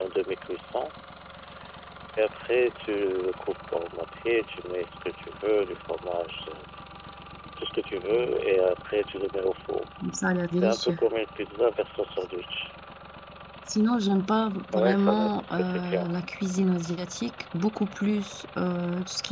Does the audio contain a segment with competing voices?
Yes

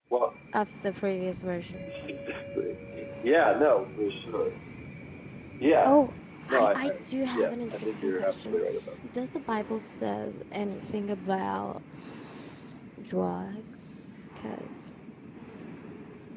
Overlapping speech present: Yes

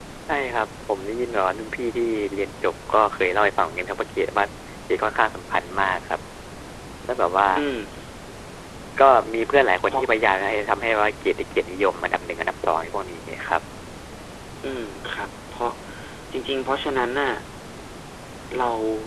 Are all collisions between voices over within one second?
Yes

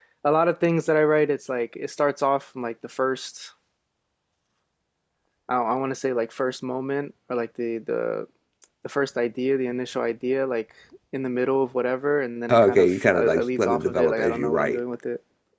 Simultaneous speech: Yes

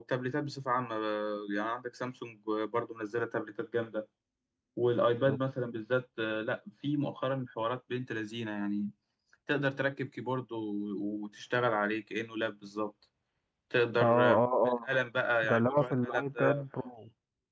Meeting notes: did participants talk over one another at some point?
Yes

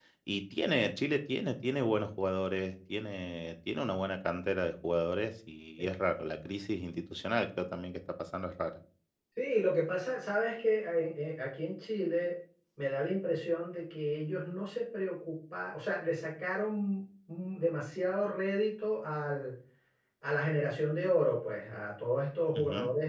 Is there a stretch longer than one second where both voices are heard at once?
No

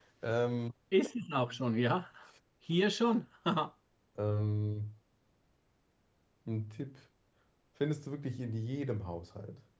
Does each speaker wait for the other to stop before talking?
Yes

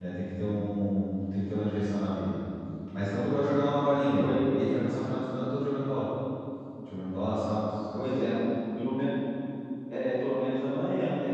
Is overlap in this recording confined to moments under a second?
Yes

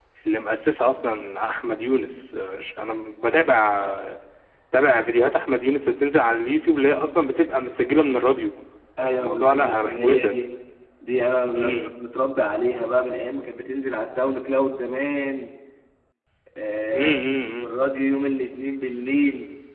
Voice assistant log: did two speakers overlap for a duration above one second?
Yes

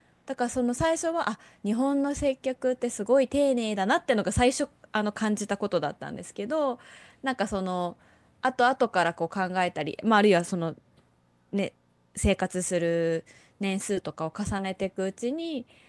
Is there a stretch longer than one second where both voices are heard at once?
No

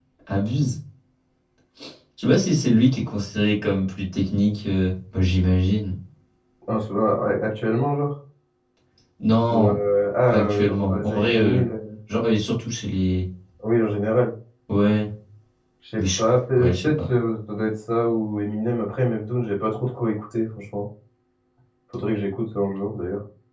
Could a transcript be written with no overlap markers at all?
No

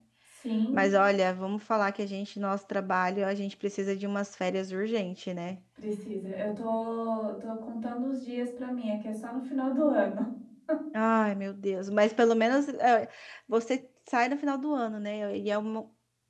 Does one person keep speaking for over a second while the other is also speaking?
No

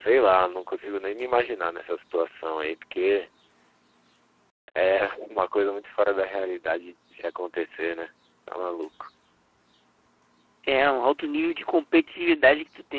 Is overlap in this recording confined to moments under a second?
Yes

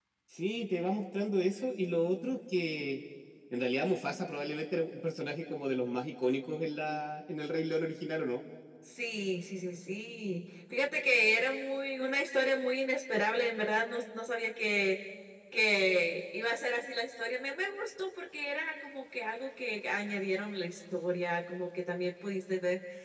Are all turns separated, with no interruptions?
Yes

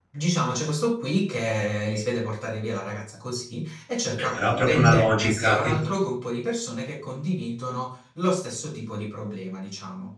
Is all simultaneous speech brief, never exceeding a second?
No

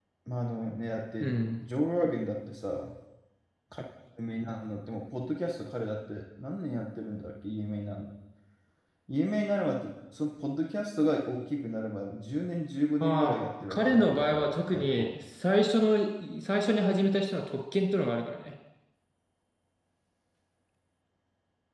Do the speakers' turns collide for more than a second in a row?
Yes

